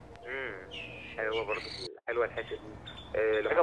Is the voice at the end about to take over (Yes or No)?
No